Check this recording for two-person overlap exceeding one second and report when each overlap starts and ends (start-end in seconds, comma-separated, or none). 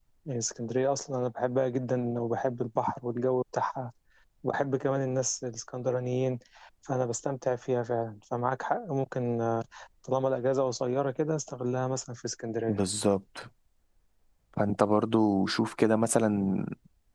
none